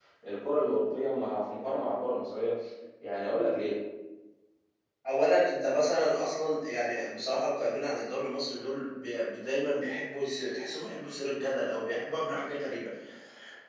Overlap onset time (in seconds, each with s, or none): none